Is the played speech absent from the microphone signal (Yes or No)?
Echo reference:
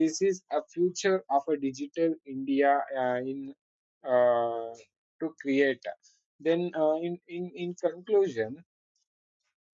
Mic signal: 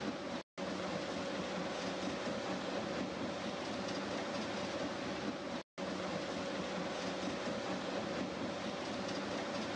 Yes